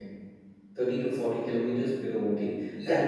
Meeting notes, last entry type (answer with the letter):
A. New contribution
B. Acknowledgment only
B